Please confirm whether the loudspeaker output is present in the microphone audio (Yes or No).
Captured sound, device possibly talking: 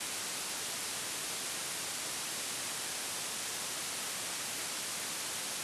No